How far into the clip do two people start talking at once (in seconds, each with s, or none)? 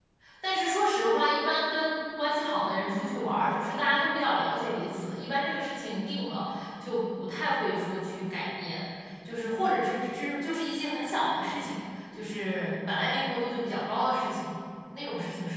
none